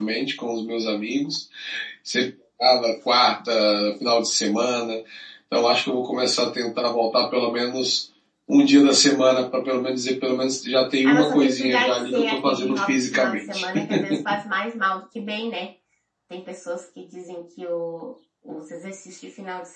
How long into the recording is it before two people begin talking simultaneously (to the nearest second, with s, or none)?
11 s